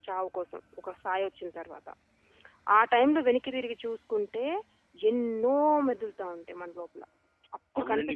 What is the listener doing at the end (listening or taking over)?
taking over